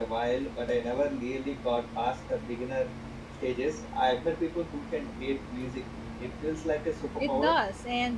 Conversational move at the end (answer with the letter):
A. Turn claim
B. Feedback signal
A